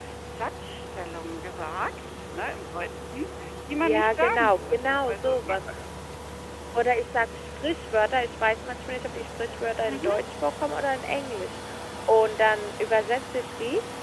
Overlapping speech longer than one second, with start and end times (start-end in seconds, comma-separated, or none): 3.8-5.4